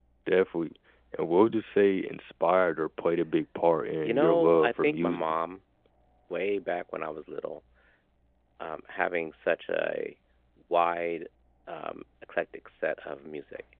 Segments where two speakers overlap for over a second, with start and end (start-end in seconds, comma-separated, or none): 4.0-5.2